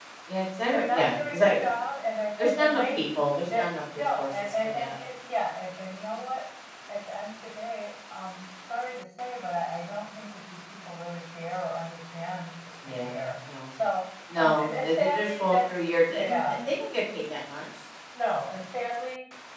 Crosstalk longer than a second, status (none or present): present